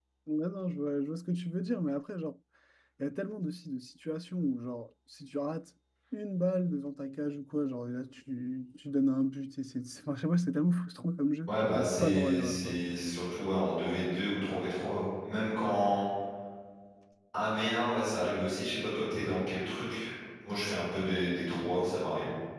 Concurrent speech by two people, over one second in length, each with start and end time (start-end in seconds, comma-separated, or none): 11.5-12.8